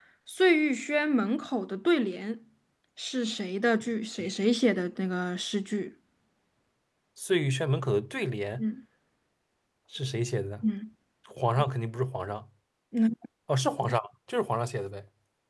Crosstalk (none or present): none